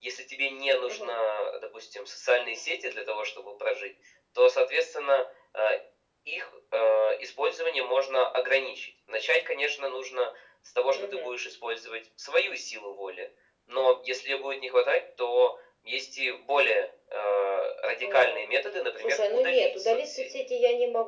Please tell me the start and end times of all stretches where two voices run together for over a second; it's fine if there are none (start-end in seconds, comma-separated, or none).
19.0-20.3